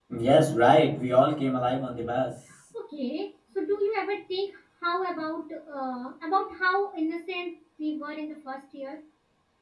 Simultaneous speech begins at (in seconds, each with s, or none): none